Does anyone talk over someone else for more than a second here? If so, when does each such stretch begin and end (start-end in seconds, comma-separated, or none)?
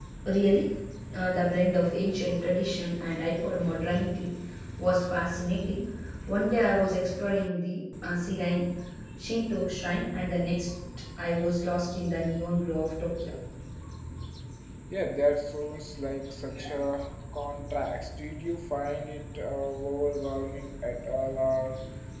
none